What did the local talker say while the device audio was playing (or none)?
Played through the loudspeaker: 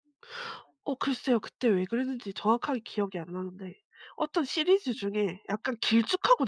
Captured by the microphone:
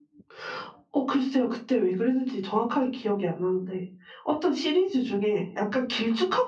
none